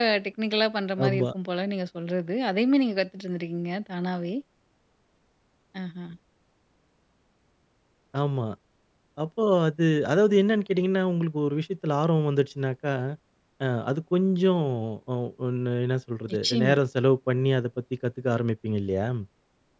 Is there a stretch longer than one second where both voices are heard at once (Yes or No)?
No